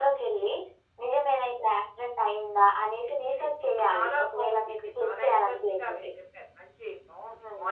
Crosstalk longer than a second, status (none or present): present